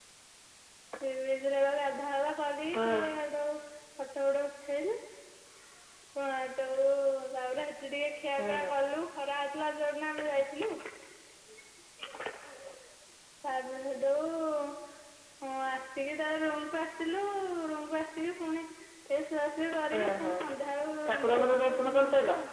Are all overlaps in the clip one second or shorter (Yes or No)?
No